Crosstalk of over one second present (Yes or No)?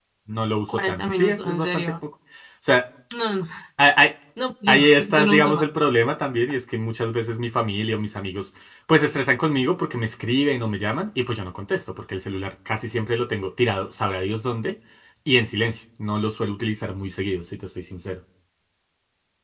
Yes